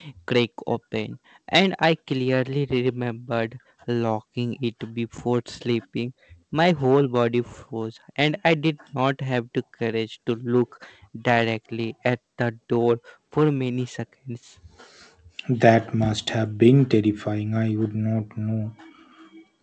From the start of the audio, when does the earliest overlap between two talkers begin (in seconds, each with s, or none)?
none